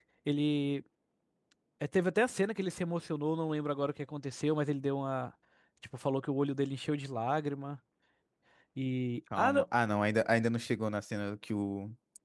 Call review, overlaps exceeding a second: none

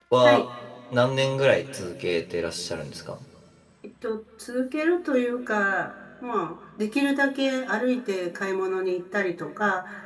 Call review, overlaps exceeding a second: none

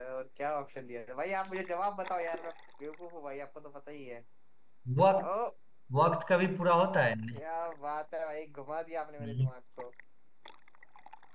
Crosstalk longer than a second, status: none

